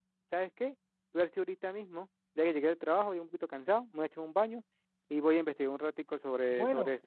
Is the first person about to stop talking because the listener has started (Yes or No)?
Yes